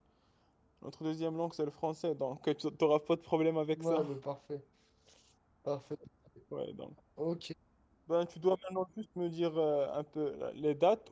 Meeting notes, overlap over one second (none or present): none